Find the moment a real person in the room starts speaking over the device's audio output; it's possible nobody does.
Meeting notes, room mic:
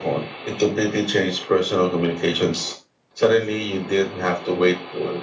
none

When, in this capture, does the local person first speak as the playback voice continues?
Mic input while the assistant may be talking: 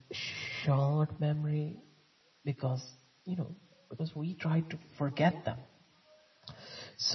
none

